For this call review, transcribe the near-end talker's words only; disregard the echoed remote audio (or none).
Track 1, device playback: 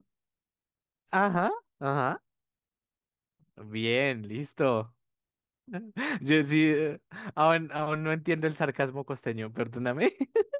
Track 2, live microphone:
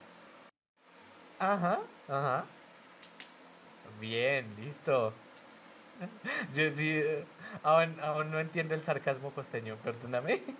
none